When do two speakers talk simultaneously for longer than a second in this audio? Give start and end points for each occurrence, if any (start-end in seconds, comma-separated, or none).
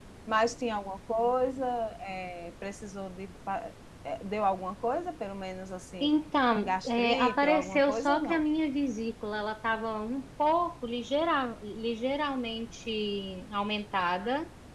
6.6-8.4